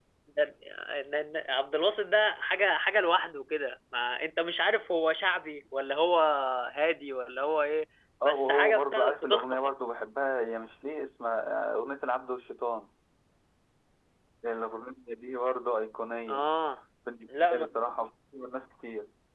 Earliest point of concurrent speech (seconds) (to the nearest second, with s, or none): 8 s